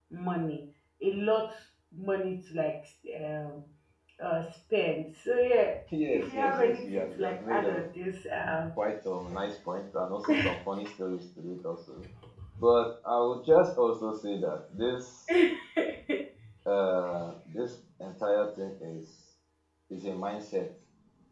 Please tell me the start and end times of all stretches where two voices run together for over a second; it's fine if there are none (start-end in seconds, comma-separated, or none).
6.1-7.8